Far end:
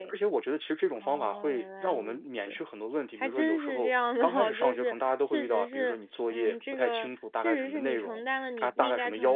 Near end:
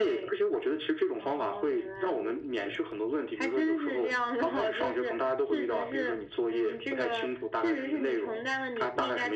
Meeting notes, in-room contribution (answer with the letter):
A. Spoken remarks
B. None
B